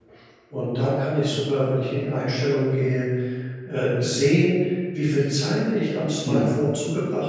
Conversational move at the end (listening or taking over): listening